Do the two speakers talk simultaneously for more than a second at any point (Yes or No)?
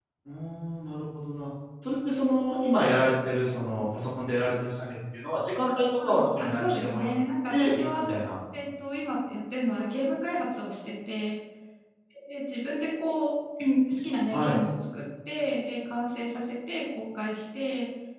Yes